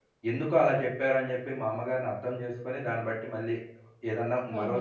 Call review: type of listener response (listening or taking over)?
taking over